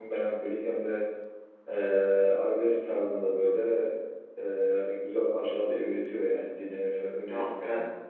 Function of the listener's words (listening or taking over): taking over